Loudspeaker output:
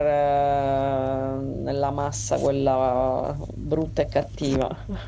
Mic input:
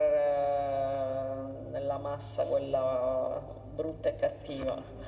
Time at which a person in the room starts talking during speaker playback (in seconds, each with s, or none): none